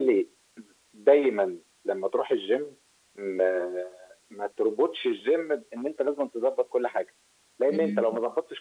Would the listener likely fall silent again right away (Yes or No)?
Yes